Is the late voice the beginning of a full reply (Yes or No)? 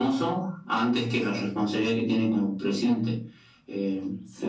No